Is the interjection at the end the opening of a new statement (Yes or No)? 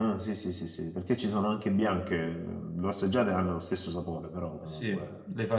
Yes